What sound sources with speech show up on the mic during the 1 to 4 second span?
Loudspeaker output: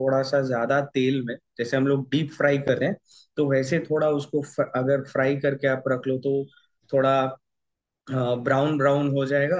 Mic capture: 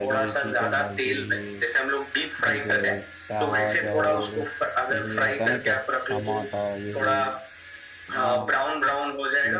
both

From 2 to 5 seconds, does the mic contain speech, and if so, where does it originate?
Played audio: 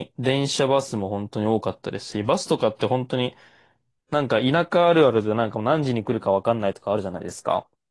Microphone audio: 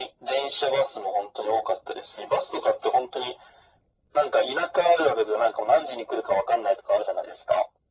echo only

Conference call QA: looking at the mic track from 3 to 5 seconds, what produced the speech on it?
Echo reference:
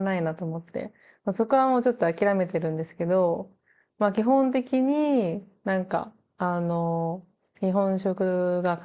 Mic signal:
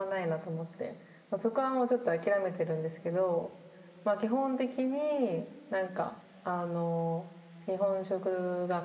echo only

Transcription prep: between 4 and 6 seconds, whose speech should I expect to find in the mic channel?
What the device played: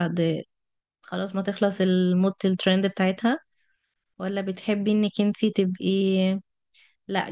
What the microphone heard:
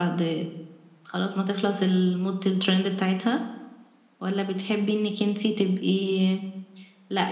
echo only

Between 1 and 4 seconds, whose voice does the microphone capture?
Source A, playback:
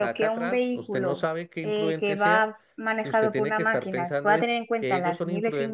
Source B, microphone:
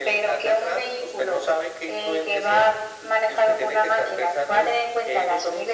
echo only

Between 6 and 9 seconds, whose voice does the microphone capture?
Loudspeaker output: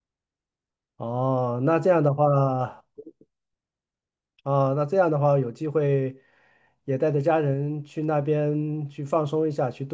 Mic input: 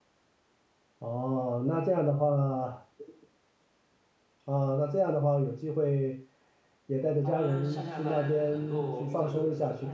both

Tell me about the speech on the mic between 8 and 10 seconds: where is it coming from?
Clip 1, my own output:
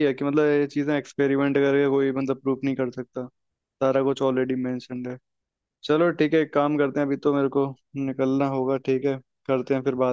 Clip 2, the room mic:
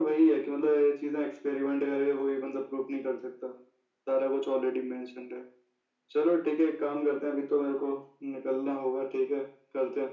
echo only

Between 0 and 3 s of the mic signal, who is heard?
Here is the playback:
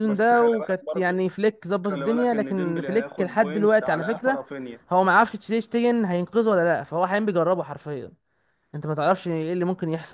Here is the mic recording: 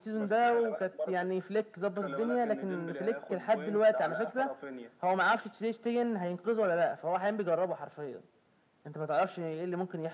echo only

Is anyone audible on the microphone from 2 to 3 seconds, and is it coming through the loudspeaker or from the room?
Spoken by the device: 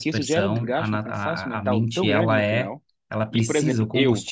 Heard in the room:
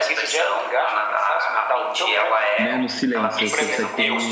both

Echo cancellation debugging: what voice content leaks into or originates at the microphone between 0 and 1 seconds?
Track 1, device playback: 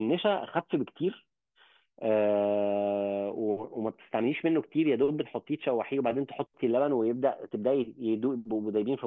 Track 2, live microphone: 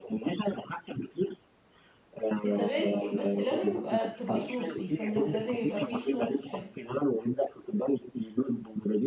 echo only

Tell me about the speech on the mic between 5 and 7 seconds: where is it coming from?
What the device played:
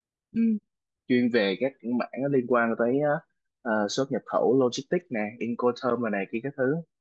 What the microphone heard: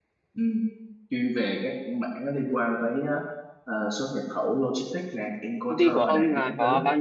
both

